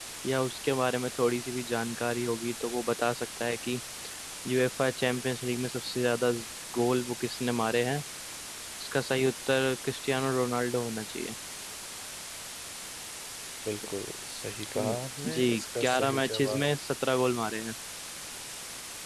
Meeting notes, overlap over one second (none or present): present